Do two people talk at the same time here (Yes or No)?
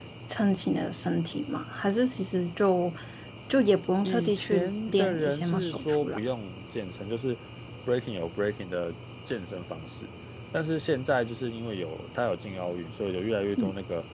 Yes